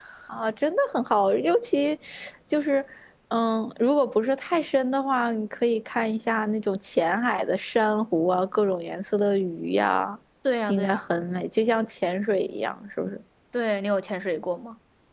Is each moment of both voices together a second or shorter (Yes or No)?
Yes